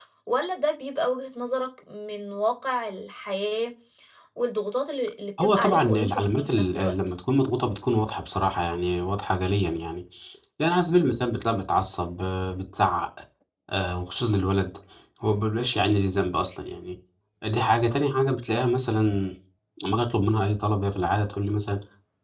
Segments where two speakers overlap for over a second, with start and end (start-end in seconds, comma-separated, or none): 5.4-6.9